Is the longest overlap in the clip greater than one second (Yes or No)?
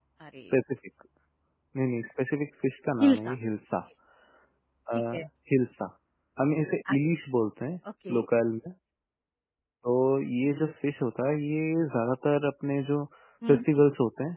No